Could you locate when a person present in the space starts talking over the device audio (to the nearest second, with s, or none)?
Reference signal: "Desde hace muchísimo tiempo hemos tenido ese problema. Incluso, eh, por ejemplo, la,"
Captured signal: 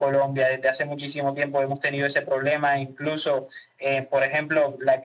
none